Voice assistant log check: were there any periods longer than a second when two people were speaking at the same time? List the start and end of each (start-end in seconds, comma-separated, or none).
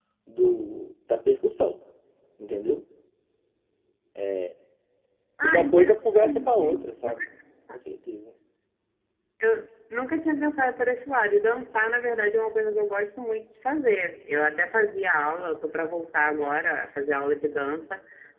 5.4-7.1